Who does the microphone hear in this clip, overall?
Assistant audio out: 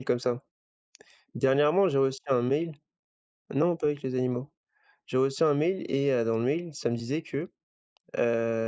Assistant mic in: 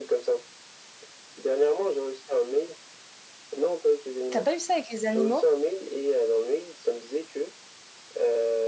both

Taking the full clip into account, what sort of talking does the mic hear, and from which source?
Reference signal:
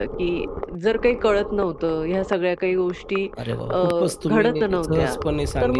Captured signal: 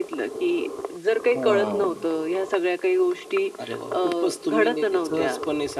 both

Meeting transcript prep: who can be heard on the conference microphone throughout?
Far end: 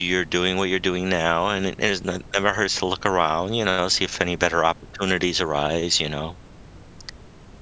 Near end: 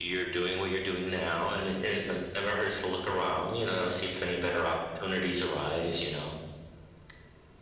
echo only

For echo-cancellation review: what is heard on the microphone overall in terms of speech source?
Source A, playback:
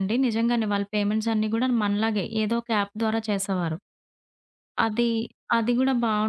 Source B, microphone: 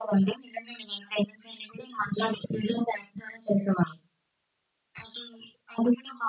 echo only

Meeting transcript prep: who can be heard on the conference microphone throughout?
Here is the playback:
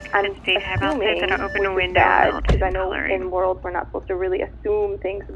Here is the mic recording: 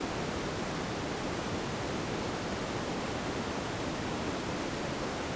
neither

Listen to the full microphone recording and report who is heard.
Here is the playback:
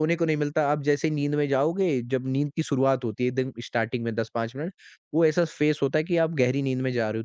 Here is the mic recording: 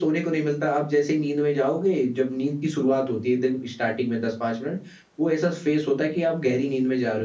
echo only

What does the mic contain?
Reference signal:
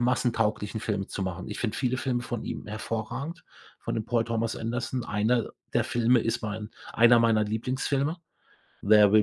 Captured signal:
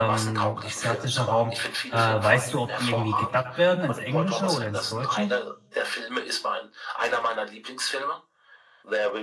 both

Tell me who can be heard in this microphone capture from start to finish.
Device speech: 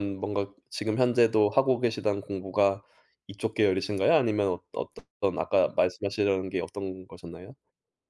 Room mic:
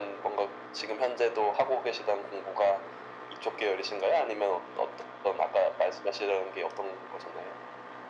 echo only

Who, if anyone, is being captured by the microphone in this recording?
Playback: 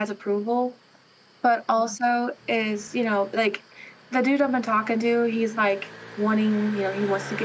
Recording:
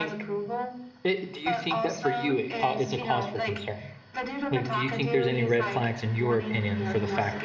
both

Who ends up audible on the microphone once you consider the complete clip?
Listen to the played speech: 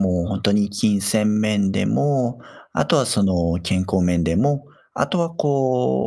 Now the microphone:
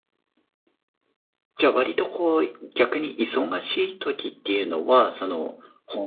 user only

